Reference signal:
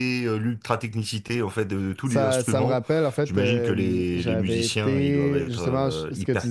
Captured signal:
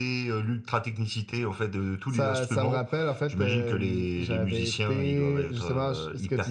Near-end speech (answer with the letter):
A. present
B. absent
B